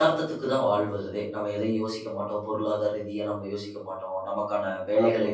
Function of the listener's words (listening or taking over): listening